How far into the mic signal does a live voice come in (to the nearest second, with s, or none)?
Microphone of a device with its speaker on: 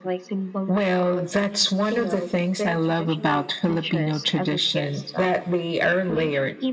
none